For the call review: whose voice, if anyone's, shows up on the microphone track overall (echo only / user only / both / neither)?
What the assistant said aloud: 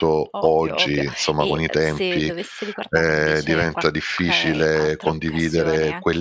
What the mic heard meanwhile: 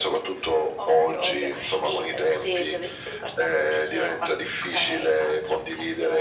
echo only